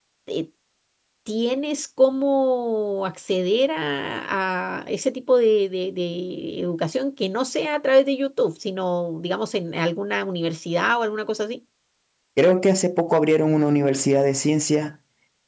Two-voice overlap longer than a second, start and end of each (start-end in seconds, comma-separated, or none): none